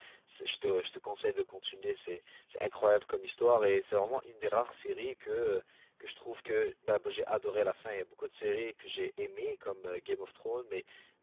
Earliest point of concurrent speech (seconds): none

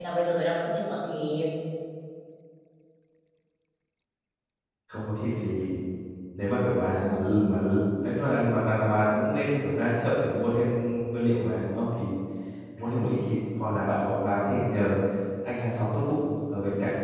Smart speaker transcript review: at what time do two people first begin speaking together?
none

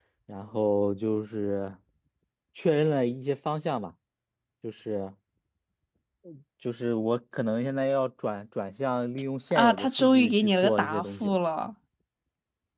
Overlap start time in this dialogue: 10 s

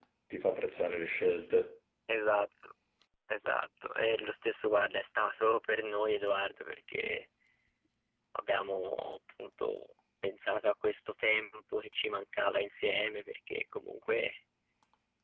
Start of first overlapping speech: none

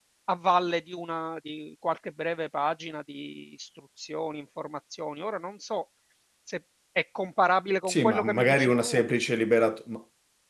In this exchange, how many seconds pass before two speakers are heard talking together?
8 s

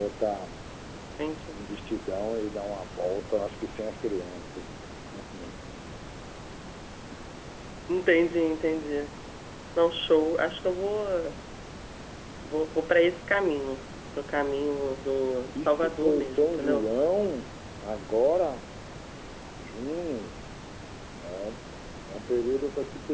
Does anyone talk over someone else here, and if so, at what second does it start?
16 s

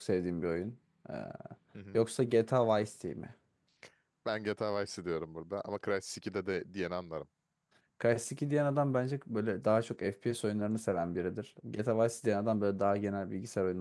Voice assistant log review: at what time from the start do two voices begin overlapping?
none

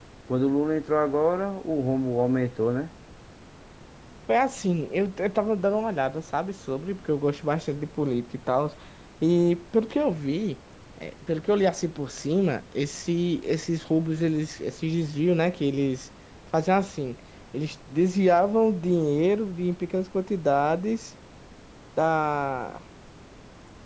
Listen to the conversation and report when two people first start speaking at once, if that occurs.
none

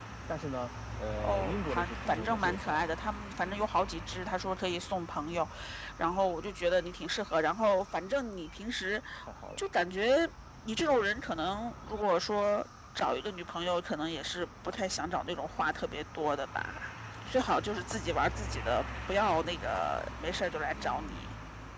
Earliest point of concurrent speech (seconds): 1 s

